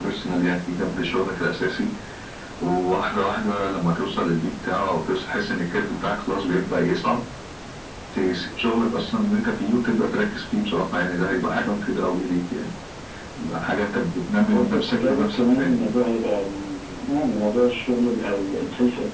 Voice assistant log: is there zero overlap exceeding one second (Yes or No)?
No